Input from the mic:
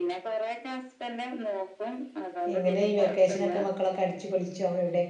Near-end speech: present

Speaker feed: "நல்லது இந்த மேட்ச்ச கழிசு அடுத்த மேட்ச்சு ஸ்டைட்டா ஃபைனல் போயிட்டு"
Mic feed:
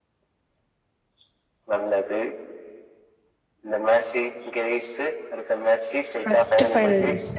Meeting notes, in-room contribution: present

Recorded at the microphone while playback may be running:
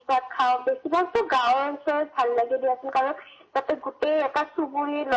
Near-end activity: none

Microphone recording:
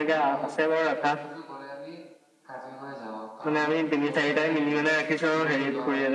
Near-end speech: present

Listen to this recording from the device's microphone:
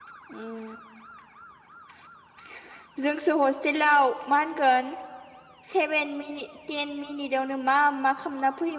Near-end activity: present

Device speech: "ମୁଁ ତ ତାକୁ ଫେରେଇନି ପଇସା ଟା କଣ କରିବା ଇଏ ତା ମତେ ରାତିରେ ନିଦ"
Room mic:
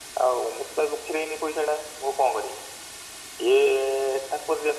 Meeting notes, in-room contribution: none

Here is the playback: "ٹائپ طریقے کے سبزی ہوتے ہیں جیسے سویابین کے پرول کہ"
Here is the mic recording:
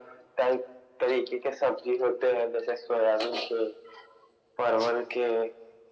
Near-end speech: none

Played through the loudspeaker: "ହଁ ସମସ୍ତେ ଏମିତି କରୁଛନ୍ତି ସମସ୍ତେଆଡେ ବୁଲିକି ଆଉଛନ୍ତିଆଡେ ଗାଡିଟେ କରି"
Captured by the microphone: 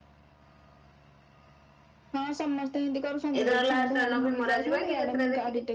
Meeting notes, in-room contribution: present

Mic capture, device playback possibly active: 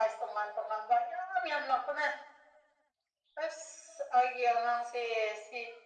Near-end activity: none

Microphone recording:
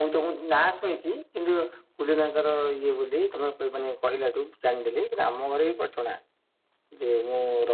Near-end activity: none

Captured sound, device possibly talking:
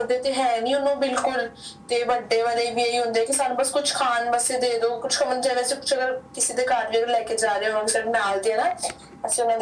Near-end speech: none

